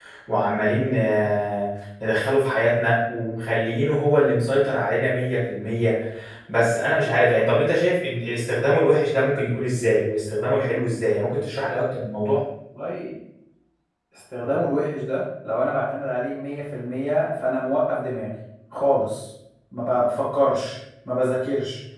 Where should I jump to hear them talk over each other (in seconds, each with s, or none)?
none